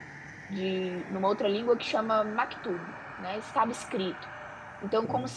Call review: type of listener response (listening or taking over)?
listening